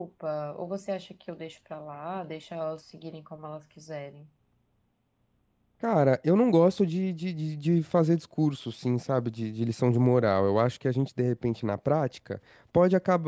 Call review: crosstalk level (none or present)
none